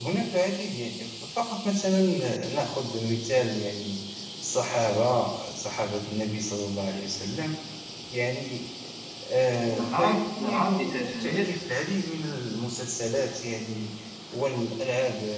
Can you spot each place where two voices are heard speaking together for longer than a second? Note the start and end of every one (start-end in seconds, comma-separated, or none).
9.7-11.4